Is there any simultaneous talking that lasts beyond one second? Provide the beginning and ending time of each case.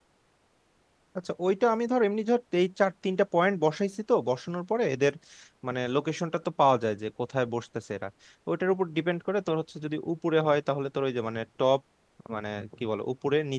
none

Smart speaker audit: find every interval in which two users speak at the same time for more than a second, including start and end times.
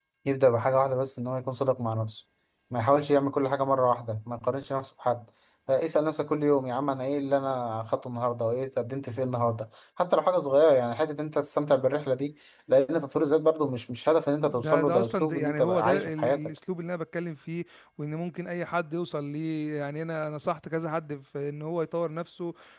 14.5-16.4

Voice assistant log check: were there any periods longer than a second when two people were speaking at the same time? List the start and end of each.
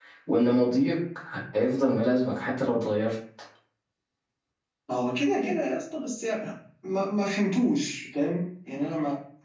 none

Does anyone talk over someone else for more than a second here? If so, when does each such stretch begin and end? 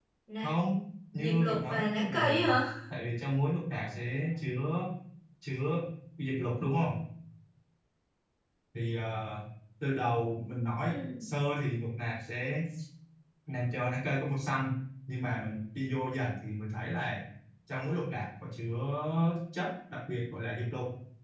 1.2-2.5

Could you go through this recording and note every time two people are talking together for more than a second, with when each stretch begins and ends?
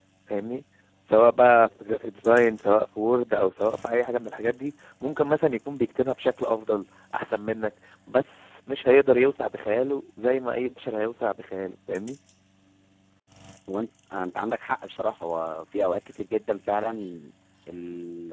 none

